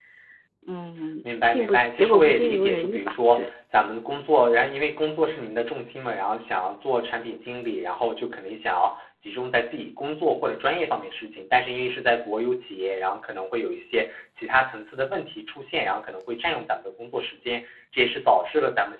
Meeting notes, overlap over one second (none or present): present